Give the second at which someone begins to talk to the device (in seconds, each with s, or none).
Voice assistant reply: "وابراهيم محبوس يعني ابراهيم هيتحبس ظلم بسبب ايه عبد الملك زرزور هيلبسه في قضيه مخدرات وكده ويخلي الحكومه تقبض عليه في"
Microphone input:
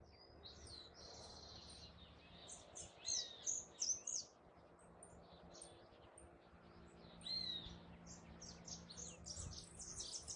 none